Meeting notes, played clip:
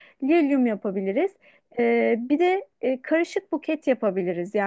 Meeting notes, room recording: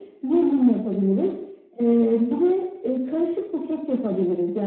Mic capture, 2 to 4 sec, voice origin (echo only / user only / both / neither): echo only